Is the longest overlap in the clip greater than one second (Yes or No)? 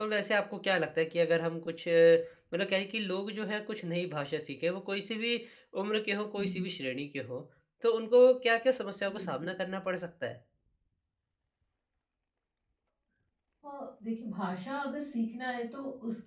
No